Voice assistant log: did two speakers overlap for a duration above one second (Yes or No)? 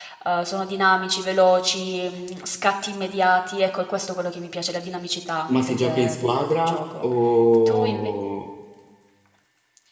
Yes